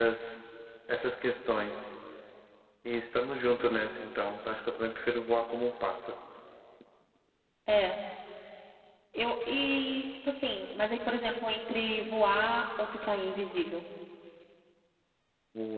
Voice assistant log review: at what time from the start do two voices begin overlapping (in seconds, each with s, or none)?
none